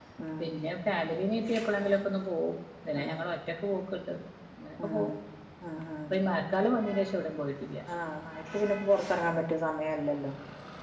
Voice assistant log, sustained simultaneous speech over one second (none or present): none